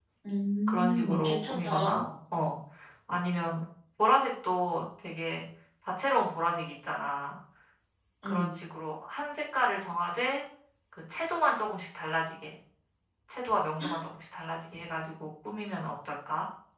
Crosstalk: present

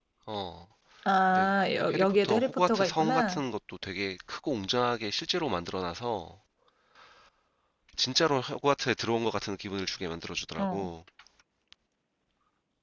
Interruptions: present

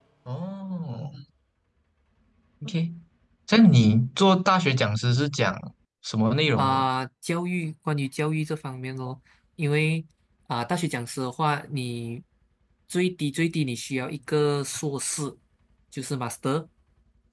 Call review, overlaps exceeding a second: none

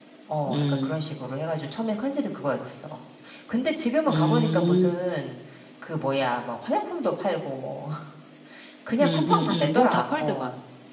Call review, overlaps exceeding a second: present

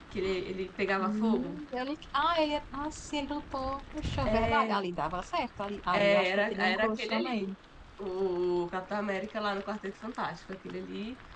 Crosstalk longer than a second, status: present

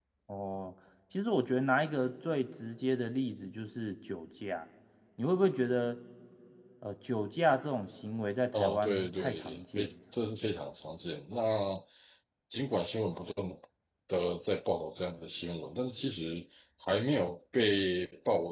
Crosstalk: present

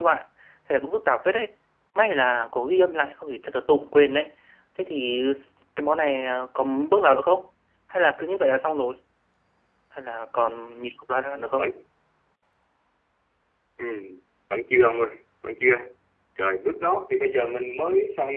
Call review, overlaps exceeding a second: none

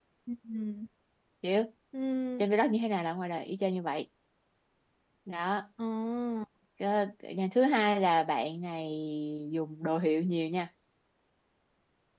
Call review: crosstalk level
none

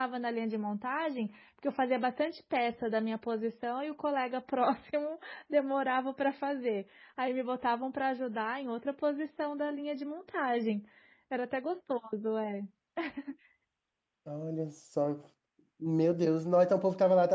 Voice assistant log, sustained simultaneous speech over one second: none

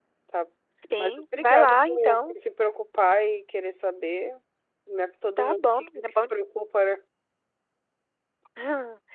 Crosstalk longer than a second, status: present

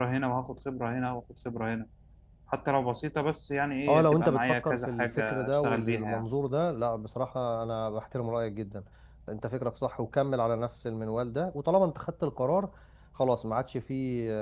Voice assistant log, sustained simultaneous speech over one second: present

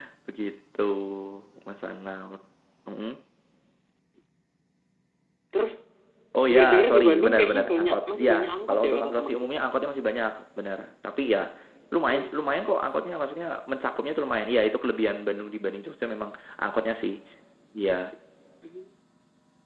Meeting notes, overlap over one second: present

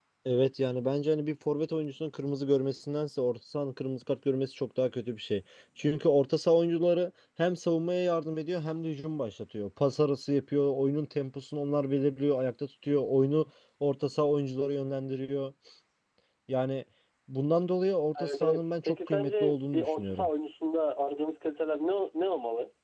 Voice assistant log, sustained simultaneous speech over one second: present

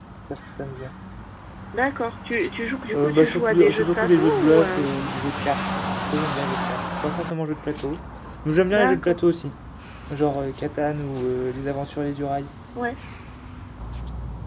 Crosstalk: present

